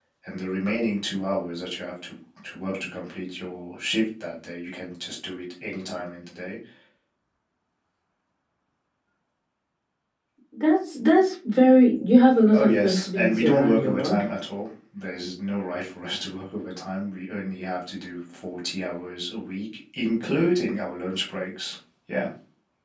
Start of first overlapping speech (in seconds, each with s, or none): 12.5 s